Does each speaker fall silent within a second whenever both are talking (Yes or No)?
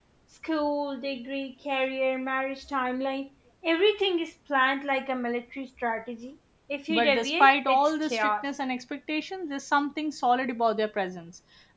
No